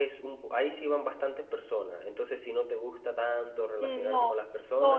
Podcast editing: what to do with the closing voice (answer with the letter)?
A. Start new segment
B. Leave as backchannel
A